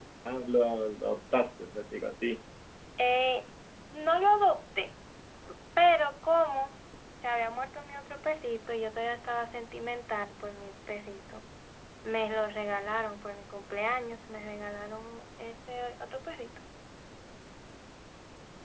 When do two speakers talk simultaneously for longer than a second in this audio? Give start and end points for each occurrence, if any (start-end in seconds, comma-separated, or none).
none